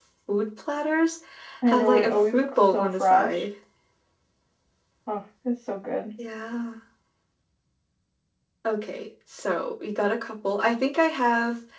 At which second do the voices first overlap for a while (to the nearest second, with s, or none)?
2 s